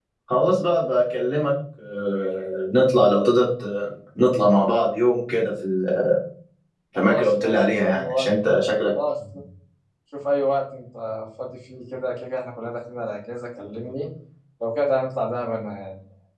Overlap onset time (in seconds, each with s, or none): 7.0 s